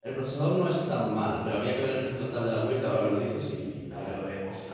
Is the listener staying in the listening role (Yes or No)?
No